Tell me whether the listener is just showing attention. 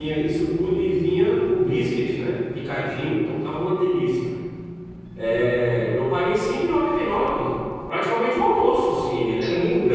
No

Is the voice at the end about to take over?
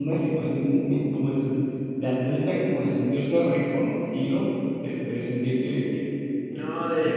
Yes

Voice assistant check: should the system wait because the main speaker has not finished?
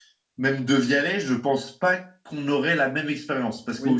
Yes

